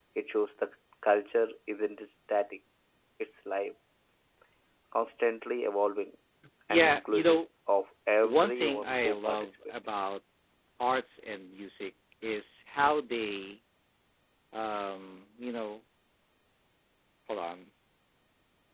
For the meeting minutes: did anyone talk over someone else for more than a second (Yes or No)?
Yes